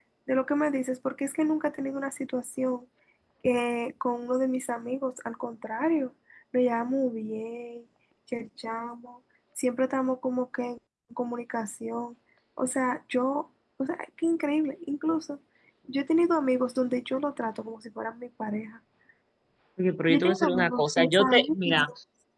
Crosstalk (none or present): present